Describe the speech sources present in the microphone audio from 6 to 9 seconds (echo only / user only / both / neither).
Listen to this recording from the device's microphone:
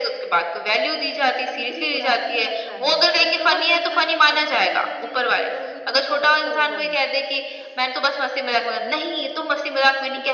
both